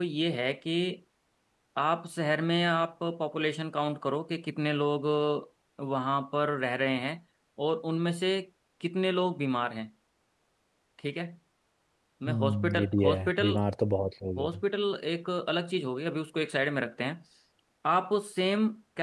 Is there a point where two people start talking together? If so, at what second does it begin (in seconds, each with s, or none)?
12.3 s